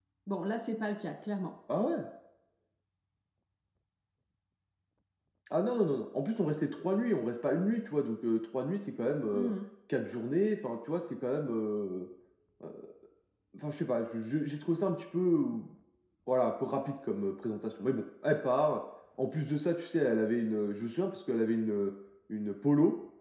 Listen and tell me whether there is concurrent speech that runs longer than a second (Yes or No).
No